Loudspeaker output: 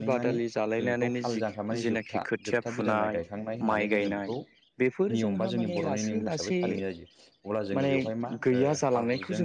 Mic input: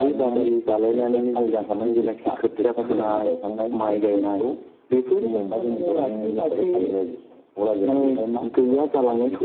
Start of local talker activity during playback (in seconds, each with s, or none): none